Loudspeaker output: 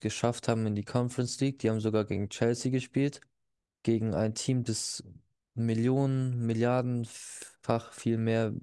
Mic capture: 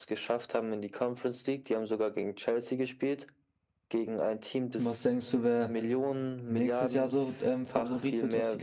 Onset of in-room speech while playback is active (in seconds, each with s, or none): 4.8 s